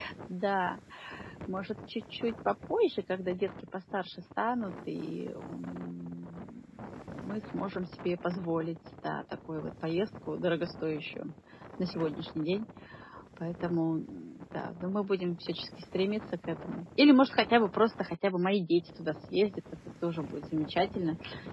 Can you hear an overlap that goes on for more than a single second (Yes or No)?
No